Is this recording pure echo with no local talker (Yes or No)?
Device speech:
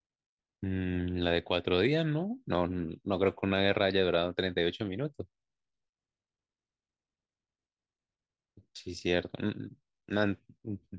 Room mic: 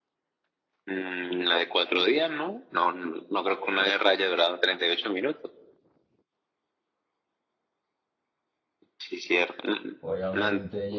No